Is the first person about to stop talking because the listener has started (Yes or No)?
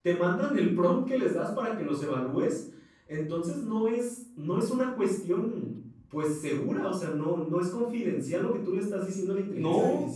Yes